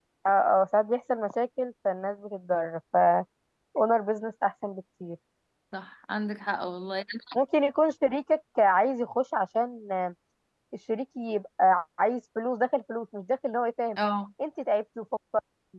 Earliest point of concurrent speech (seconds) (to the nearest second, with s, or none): none